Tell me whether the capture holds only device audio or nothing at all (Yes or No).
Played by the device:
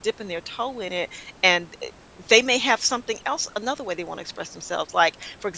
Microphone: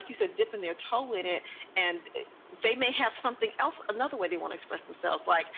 Yes